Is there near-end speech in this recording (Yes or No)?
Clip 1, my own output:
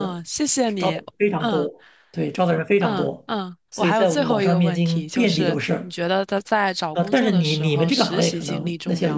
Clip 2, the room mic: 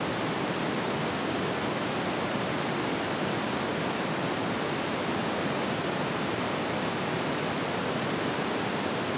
No